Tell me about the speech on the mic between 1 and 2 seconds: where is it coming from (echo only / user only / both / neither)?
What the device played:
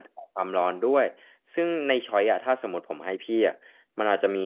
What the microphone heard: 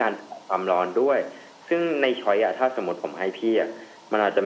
echo only